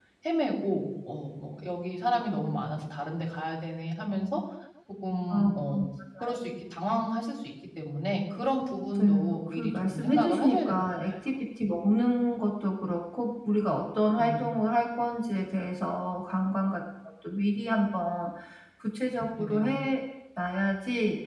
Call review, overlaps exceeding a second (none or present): present